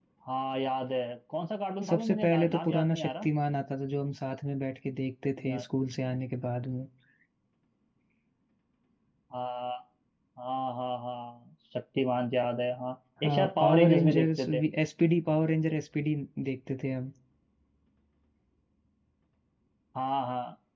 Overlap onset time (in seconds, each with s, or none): 1.9 s